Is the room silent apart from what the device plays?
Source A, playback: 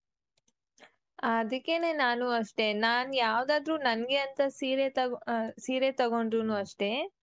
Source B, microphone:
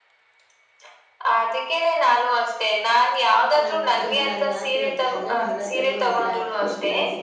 No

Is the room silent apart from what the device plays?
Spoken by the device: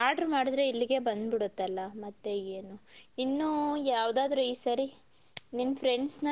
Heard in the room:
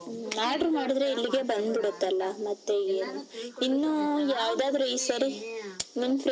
No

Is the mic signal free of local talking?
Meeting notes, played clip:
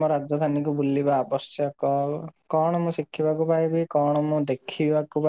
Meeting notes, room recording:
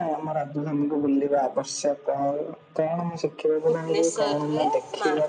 No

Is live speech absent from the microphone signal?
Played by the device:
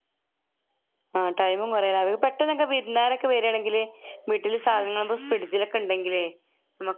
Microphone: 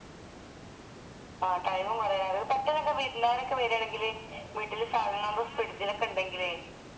Yes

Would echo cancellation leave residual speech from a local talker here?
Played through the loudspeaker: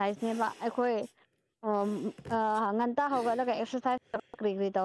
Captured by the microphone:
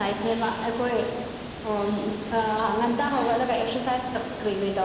No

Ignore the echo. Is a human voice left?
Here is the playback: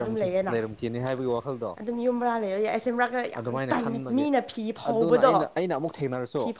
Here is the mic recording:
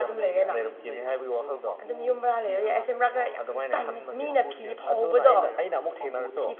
Yes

